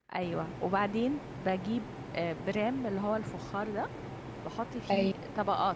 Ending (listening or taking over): listening